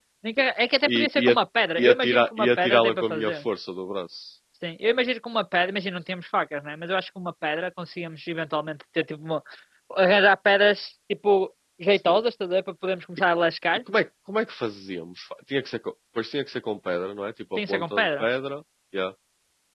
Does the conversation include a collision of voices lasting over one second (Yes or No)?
Yes